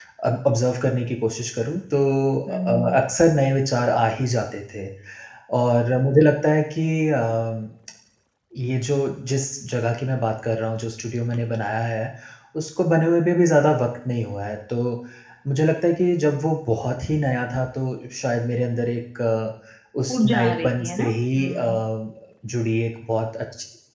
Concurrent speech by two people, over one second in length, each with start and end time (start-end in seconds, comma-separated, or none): 20.1-21.8